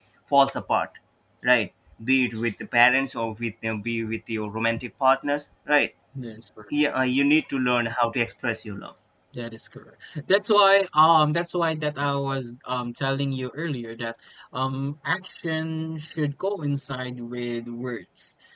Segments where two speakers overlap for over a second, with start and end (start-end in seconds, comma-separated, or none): none